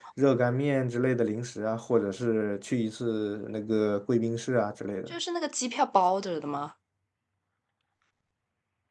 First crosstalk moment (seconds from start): none

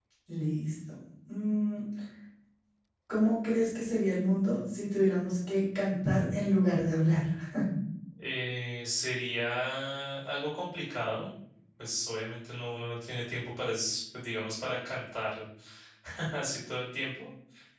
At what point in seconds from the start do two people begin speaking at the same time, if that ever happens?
none

